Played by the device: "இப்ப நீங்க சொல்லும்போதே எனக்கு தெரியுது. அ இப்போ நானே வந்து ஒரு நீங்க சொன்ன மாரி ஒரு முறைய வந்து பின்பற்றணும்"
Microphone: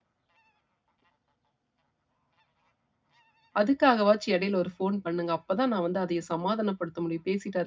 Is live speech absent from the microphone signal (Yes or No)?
No